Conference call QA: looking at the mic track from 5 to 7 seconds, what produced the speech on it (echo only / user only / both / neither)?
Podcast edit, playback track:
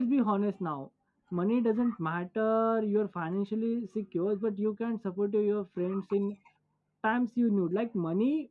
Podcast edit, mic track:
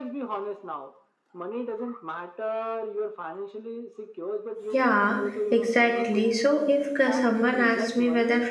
both